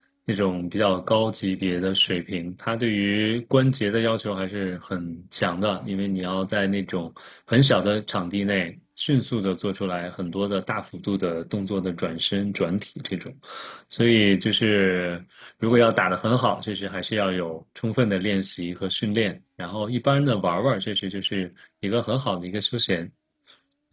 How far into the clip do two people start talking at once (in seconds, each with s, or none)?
none